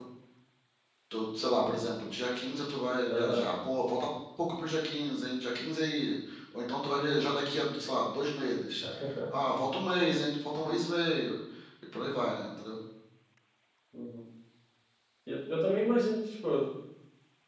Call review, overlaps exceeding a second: none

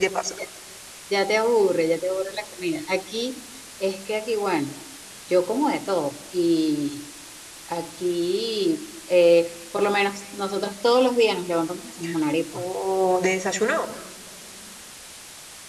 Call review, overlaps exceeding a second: none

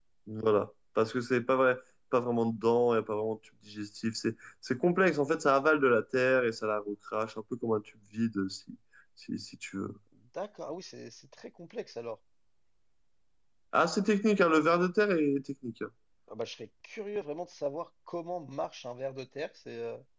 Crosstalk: none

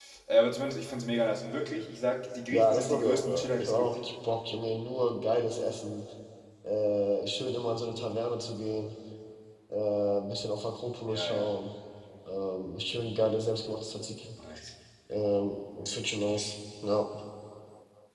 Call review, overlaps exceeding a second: present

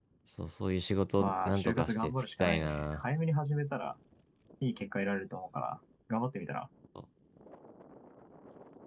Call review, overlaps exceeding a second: present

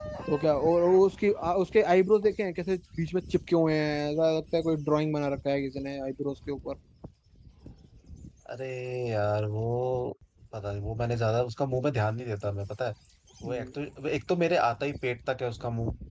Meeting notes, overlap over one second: none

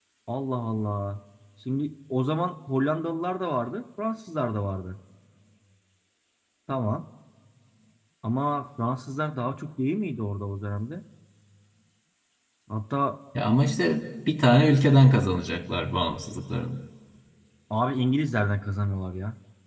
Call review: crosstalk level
none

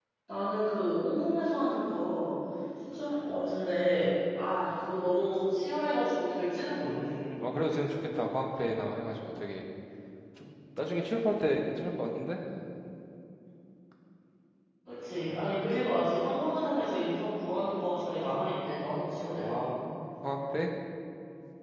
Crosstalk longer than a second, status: none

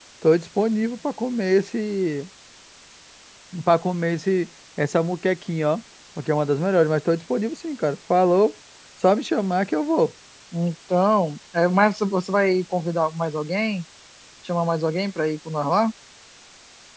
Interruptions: none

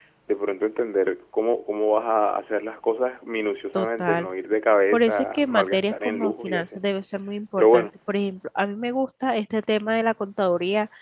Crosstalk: present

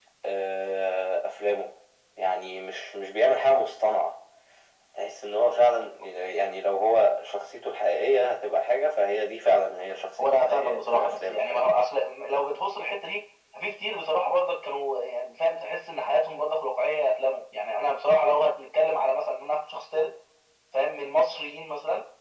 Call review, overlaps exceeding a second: present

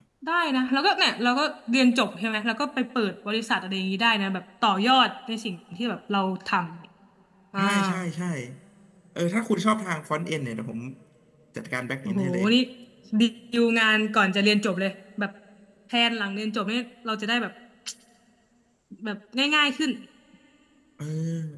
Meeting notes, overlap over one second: none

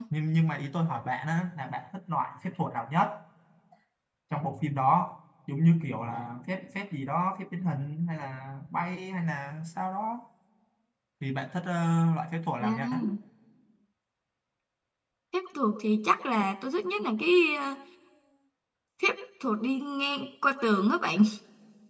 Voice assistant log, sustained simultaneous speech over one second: none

